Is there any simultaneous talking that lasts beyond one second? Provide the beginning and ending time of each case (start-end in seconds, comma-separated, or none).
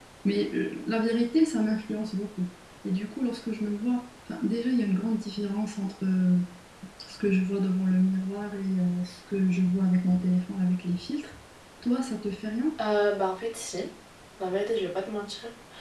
none